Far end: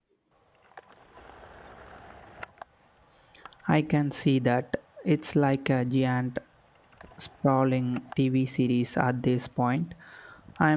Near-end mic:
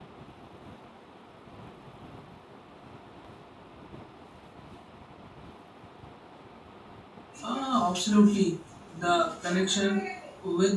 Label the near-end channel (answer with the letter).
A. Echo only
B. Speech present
B